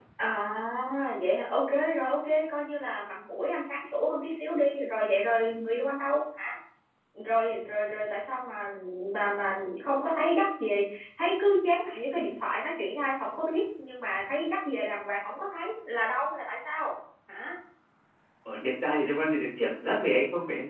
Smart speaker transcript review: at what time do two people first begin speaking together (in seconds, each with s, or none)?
none